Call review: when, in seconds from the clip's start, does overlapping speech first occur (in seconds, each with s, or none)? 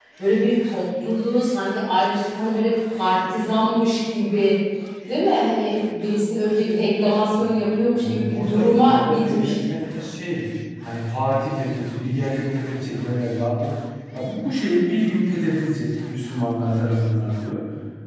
8.0 s